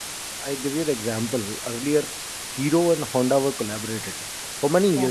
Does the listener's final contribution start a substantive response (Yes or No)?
No